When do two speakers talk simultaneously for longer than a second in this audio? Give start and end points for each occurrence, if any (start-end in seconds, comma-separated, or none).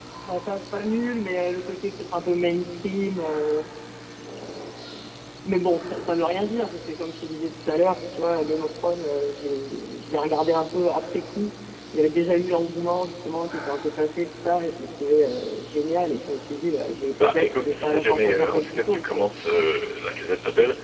17.2-19.3